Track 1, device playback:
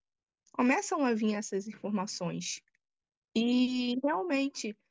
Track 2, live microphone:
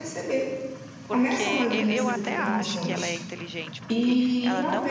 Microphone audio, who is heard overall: both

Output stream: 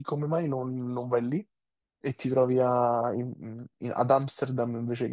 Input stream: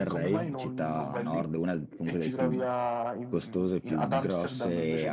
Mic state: both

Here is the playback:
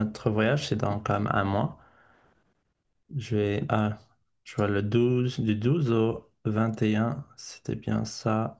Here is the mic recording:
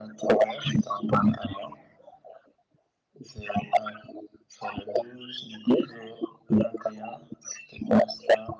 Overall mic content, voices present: echo only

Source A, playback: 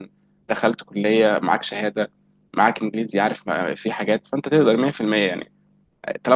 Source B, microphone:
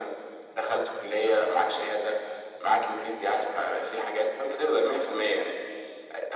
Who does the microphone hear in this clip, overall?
echo only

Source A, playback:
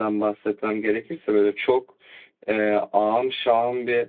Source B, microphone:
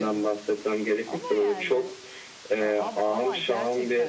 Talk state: both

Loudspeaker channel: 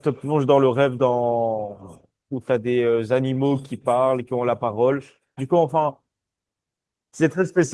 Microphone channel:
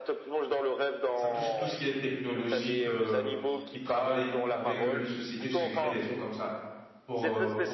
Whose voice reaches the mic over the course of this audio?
both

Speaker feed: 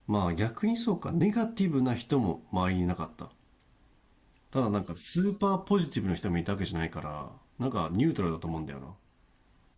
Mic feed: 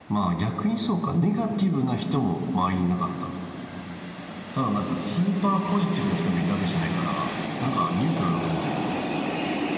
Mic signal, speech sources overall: echo only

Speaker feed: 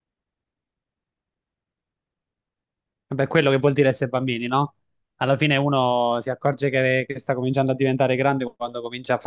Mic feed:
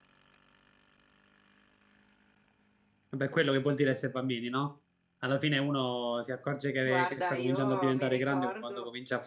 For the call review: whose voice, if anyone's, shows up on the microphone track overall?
both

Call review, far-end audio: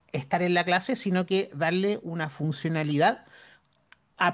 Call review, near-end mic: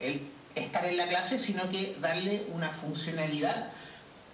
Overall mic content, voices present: echo only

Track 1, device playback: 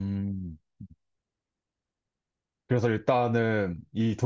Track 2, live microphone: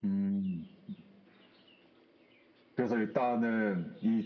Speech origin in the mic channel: echo only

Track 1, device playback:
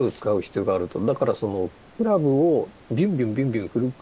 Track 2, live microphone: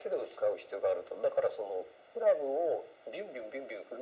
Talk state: echo only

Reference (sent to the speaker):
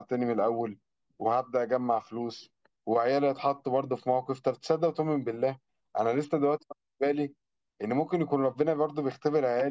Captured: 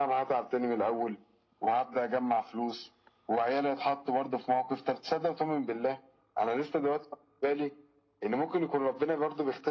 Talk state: echo only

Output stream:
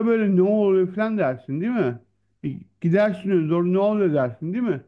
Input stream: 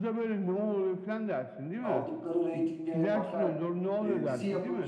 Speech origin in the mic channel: both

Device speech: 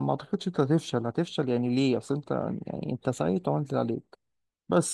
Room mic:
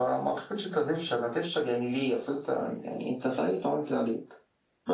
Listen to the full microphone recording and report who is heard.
echo only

